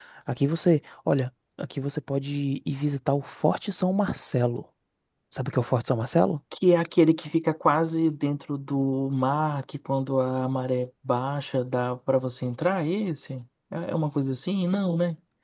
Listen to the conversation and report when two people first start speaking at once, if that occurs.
none

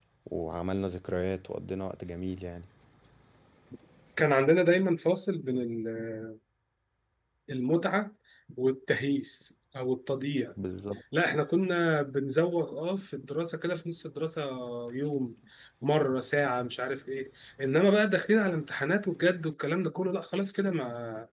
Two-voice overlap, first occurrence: none

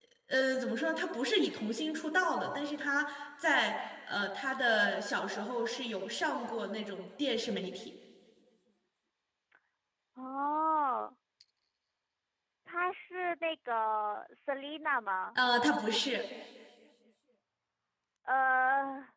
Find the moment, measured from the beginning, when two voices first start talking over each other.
none

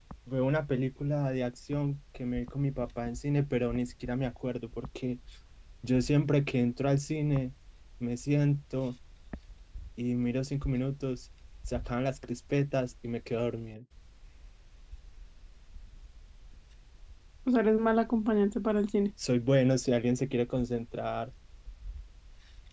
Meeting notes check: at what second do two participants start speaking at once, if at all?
none

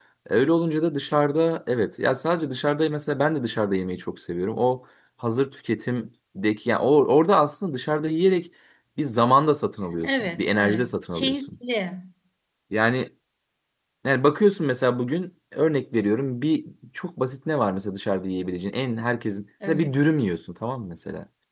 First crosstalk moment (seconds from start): 10.0 s

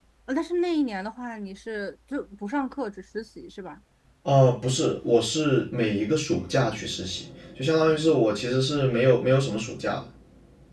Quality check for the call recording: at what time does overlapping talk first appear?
none

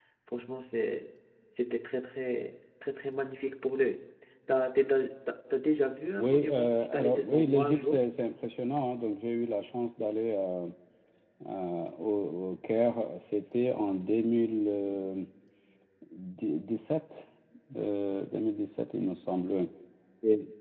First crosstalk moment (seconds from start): 6.1 s

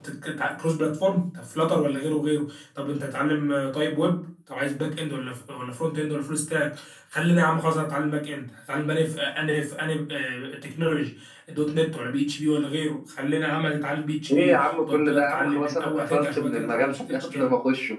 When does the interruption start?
14.3 s

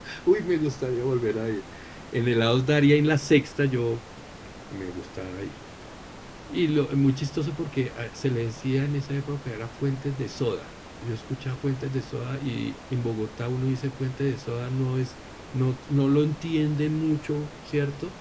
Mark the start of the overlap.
none

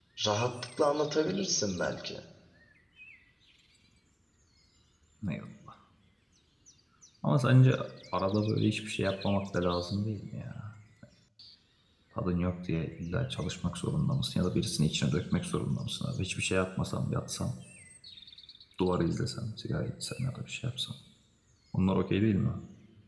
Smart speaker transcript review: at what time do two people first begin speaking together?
none

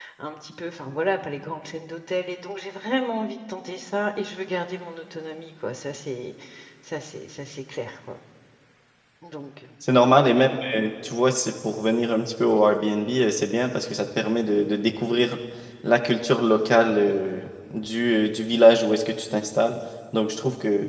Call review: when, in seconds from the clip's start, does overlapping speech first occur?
none

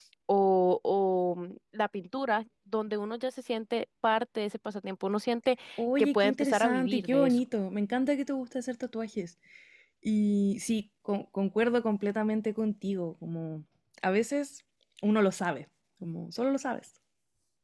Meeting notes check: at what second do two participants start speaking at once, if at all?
6.0 s

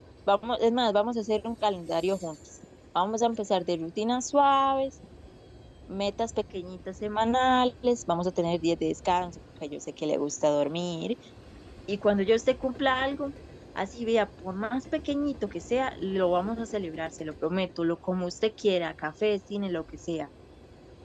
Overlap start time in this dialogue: none

